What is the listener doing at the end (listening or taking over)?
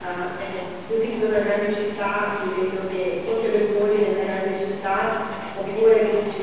listening